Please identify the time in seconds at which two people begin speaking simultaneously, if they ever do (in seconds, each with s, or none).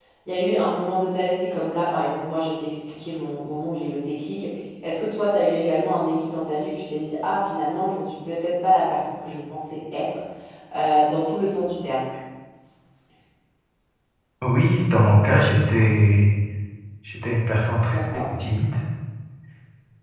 none